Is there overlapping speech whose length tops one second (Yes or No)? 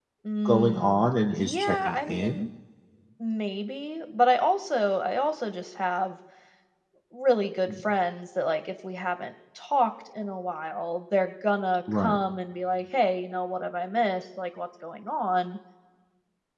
Yes